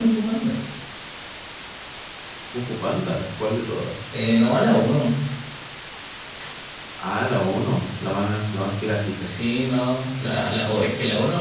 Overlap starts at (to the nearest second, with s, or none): none